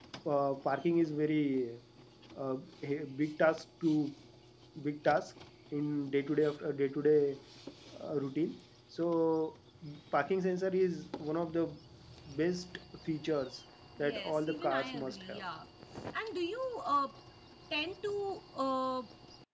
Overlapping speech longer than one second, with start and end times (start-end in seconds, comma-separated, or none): 14.0-15.4